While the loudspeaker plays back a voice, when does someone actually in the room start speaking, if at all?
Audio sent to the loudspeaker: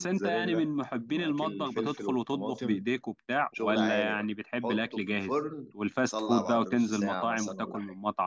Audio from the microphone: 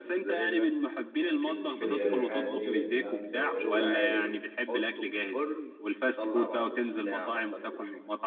1.8 s

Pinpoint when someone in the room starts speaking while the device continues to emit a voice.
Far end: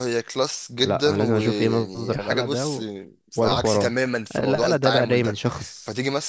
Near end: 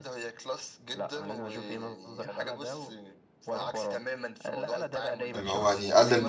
5.3 s

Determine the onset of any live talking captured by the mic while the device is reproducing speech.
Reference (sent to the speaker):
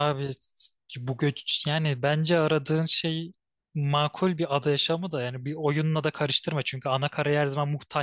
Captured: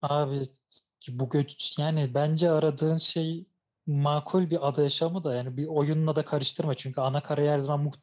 none

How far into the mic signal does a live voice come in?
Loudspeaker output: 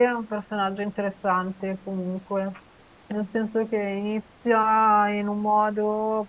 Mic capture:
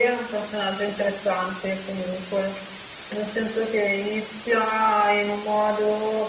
none

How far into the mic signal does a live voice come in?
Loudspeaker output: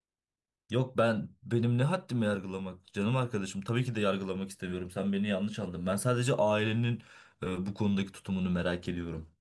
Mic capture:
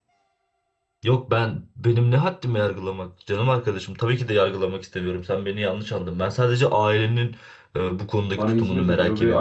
8.3 s

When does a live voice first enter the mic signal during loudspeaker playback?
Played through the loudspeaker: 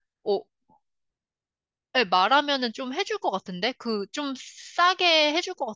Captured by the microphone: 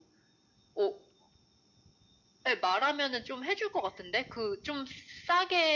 none

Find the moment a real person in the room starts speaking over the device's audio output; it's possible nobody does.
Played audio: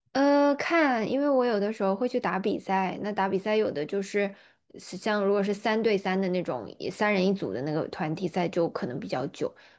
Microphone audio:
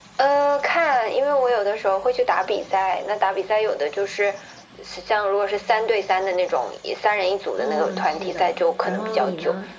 7.5 s

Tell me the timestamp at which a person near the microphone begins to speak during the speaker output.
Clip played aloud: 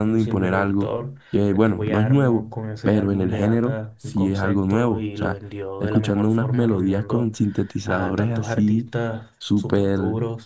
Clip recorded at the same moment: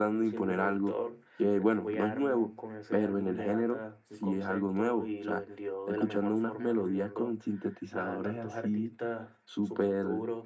none

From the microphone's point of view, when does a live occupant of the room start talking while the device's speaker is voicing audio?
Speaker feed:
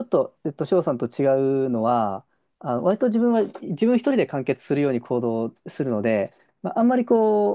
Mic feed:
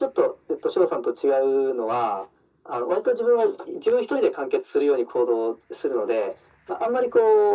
none

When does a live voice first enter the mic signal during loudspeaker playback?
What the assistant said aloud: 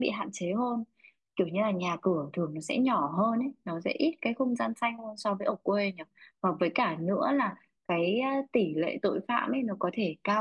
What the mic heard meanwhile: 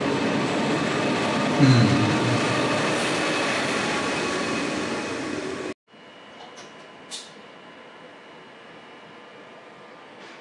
1.6 s

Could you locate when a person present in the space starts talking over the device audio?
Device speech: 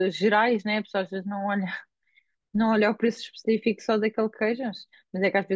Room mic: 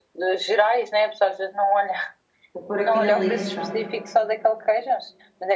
2.5 s

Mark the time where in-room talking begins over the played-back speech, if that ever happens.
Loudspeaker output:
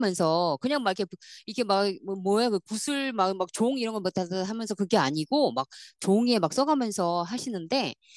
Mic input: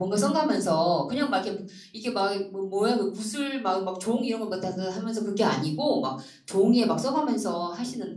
none

